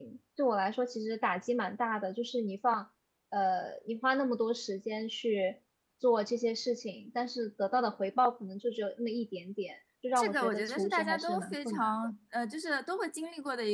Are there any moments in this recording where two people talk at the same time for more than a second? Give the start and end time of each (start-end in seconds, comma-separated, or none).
10.2-11.9